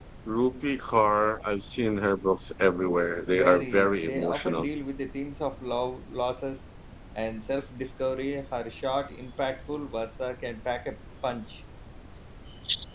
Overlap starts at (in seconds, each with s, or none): 3.3 s